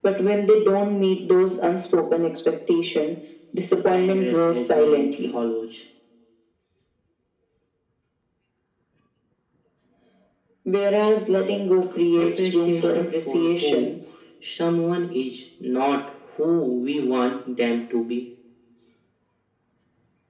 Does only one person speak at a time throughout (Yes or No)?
No